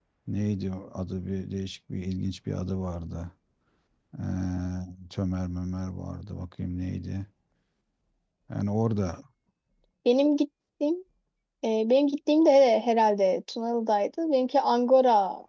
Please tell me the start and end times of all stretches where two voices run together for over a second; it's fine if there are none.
none

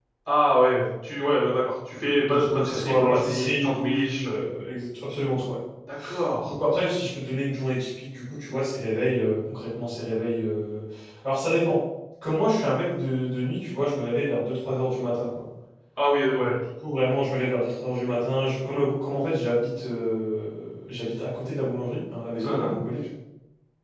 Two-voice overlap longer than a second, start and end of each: 2.3-4.5

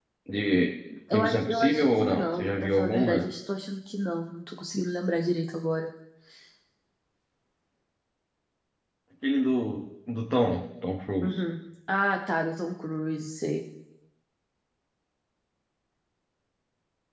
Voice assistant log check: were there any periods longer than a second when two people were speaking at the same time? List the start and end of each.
1.1-3.2

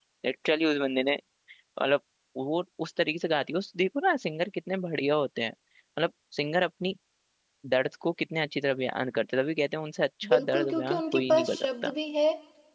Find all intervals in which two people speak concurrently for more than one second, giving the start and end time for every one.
10.3-11.9

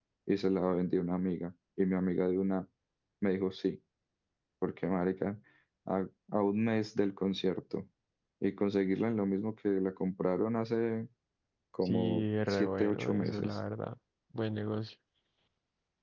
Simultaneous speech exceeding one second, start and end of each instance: 11.8-13.6

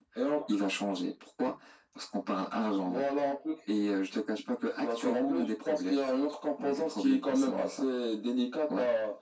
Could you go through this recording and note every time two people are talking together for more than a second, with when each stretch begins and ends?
4.8-6.0, 6.6-7.8

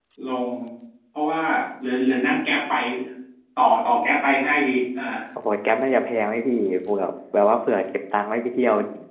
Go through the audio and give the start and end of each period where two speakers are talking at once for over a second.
none

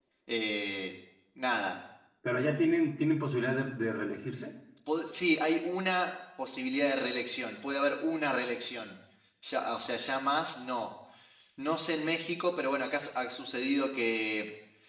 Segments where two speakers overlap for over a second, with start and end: none

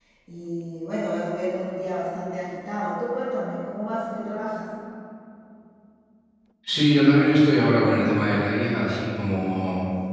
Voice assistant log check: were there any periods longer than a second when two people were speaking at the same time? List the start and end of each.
none

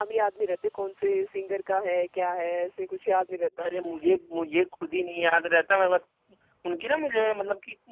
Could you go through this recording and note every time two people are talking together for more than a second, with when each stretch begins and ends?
none

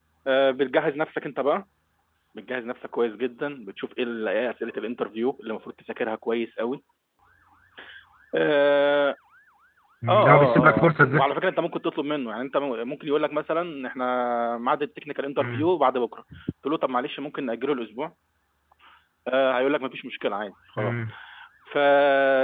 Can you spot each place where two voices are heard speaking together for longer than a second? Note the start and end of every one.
10.1-11.3

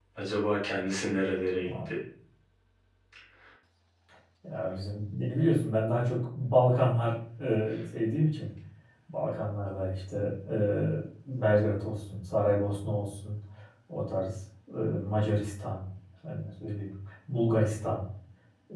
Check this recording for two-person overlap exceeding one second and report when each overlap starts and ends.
none

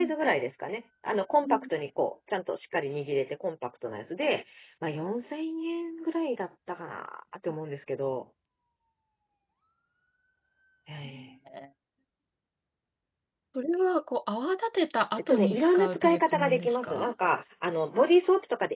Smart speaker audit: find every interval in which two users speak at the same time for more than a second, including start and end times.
15.3-17.1

